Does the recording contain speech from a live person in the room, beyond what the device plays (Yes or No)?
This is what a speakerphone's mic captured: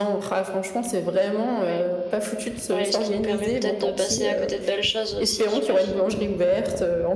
Yes